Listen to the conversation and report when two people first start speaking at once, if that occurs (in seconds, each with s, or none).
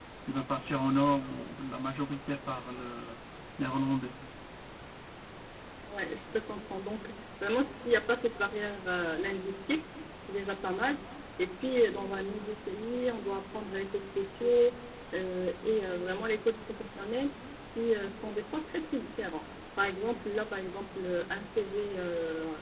none